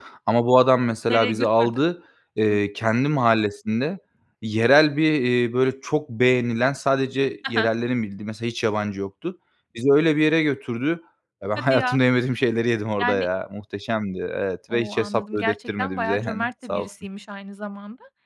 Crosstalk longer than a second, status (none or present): present